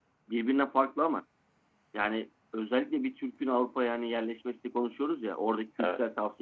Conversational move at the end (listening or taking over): listening